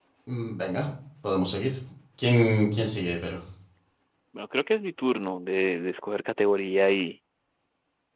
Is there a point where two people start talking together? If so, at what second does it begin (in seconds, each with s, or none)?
none